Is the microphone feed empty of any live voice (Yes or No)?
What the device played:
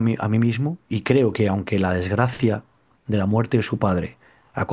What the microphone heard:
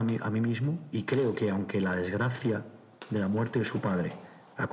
Yes